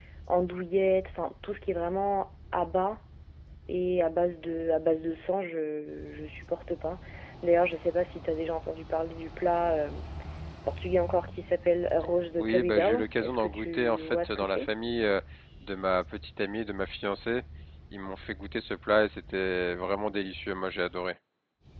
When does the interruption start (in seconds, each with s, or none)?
12.4 s